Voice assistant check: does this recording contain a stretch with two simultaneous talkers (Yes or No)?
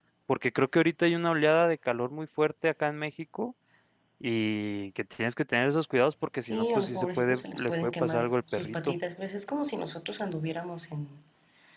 Yes